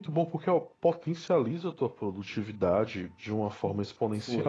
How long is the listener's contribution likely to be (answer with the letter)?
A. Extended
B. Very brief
B